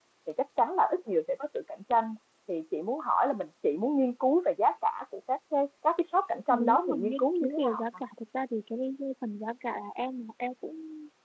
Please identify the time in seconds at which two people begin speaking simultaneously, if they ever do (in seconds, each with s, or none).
6.5 s